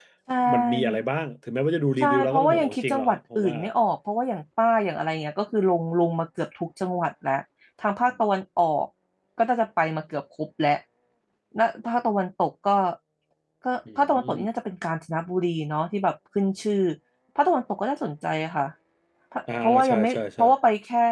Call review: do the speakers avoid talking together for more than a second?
No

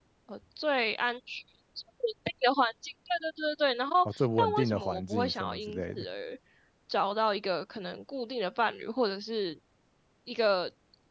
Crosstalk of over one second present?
Yes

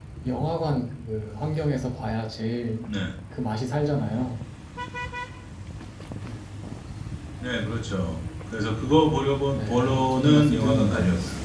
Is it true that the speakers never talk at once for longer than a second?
No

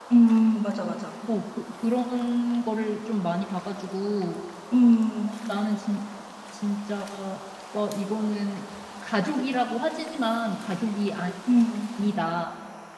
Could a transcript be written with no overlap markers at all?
Yes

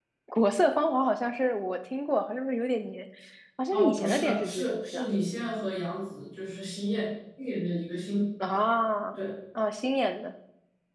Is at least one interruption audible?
Yes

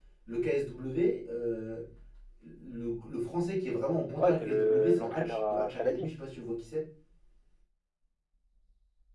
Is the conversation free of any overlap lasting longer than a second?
No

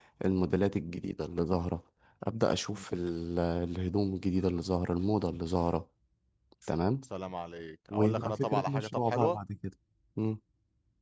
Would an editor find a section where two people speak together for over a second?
Yes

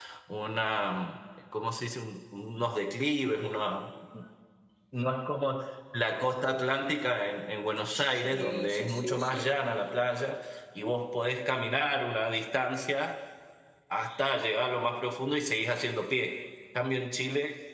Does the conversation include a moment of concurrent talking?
Yes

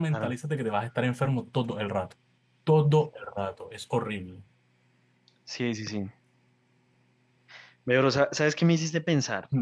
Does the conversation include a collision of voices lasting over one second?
No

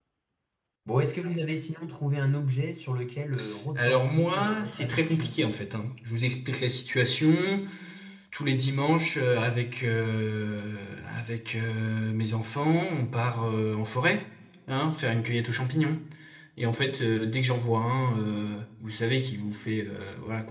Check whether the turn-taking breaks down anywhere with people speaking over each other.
Yes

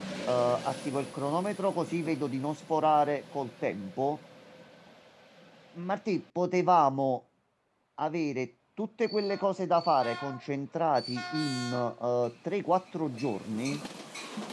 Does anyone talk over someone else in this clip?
No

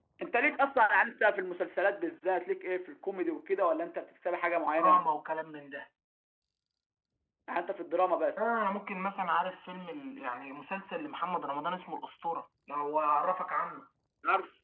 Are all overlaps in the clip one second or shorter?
Yes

